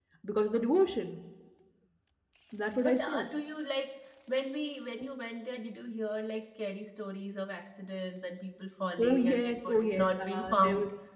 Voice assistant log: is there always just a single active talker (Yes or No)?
No